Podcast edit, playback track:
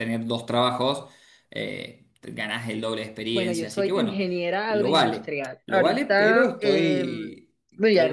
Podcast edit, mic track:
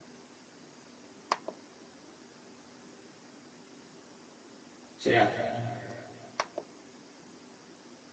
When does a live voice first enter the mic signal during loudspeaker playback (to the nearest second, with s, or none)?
5 s